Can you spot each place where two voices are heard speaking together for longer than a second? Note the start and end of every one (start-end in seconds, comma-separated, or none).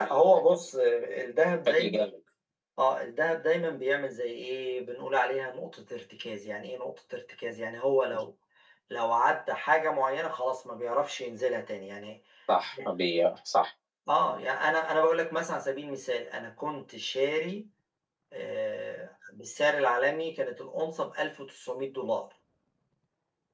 none